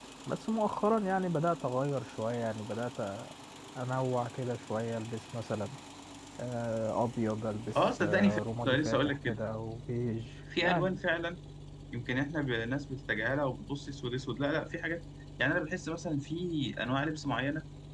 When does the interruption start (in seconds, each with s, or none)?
7.8 s